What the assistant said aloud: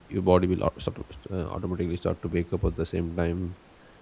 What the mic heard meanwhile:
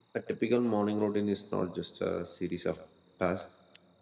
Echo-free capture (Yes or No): Yes